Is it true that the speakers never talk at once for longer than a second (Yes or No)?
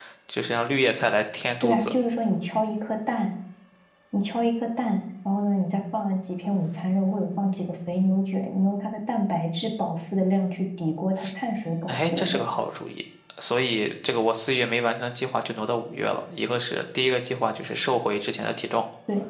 Yes